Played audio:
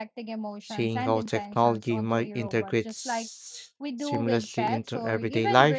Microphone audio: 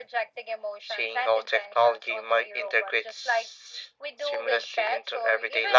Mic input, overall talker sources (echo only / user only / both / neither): echo only